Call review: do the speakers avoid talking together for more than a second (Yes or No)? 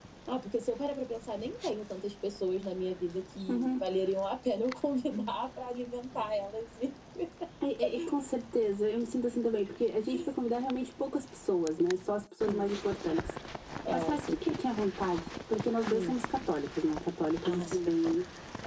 Yes